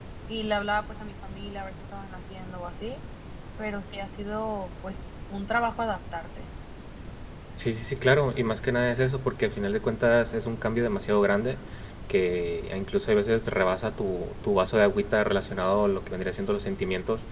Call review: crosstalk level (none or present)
none